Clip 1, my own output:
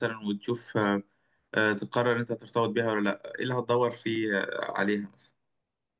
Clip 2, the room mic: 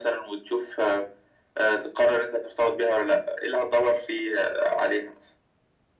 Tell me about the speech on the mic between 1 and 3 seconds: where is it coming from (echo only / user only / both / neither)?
echo only